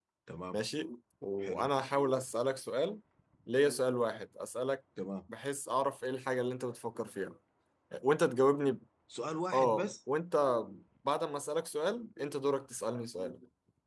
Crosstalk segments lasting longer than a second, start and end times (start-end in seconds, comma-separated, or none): none